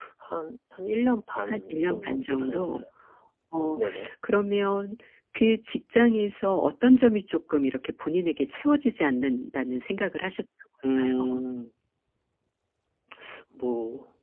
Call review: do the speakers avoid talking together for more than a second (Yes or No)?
No